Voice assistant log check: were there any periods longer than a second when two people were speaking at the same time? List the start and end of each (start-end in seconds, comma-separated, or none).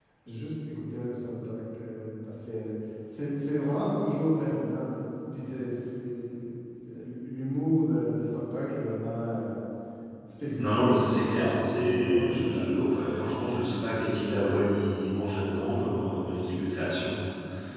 10.6-12.8